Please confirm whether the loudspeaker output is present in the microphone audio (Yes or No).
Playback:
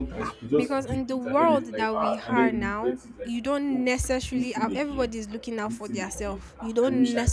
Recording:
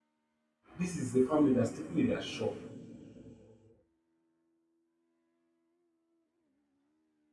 No